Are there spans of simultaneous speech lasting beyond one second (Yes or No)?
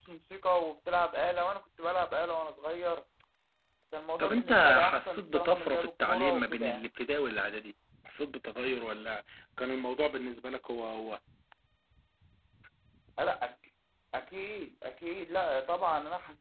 Yes